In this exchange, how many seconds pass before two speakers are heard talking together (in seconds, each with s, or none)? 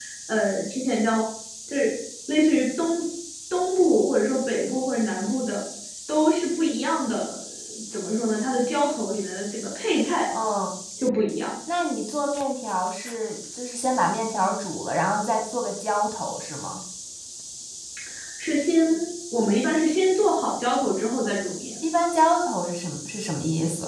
none